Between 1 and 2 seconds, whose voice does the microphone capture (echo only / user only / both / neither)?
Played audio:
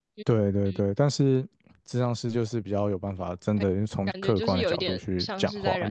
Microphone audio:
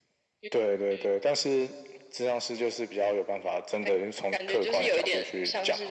echo only